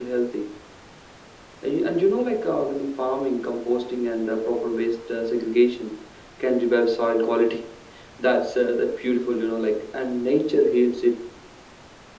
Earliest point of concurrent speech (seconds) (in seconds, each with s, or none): none